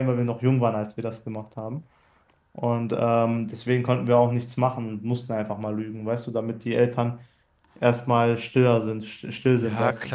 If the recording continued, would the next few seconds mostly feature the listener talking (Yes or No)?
Yes